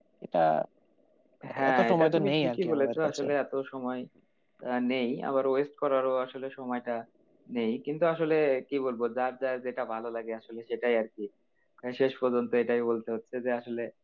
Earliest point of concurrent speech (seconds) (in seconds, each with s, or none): 1.6 s